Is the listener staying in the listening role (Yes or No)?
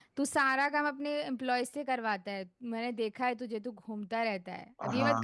No